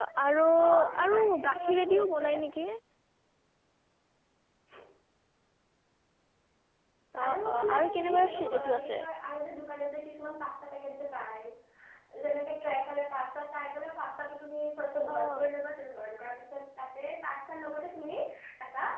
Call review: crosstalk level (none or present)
present